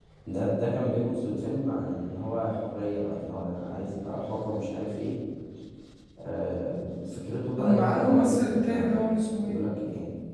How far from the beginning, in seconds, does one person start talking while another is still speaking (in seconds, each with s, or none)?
7.6 s